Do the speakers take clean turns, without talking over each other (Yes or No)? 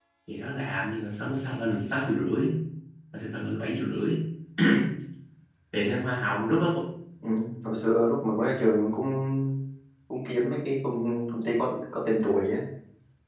Yes